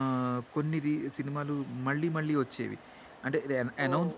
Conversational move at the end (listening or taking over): listening